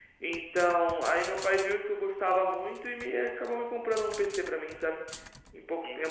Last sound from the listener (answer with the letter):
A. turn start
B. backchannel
A